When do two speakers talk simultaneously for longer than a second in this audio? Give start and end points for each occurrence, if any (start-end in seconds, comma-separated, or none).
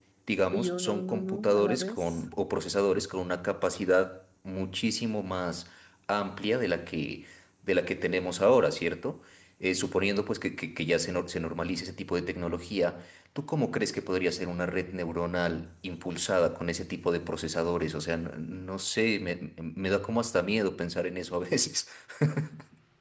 0.5-2.2